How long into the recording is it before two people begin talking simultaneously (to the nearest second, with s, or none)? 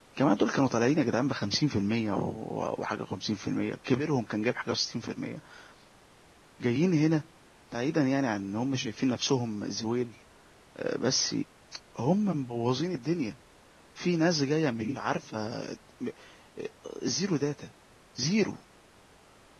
none